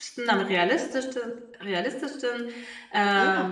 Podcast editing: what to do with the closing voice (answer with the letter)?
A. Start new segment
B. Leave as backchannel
B